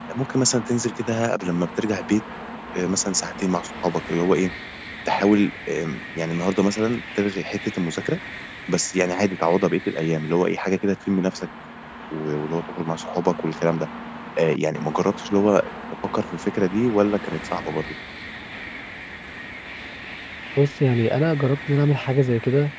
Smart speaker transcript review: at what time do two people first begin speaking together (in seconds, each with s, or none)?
none